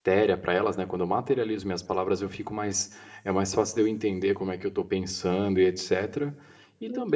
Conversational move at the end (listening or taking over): listening